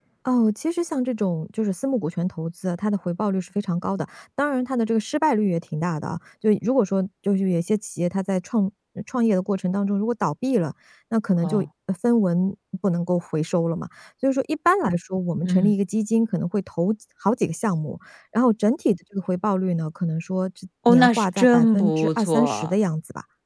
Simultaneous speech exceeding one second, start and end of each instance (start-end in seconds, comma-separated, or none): 20.9-22.7